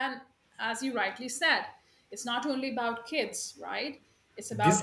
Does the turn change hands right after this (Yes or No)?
Yes